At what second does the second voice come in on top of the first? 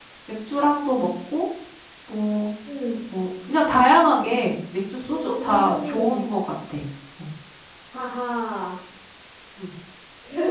5.1 s

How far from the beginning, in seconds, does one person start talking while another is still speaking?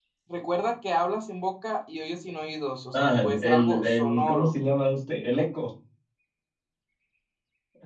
2.9 s

